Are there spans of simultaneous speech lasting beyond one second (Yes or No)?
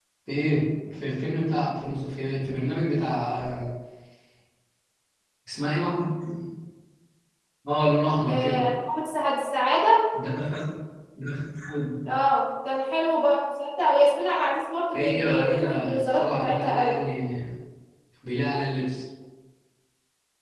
Yes